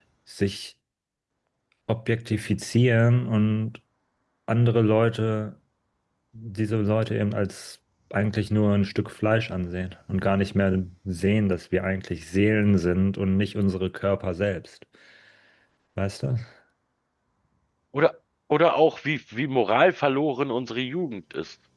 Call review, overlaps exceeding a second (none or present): none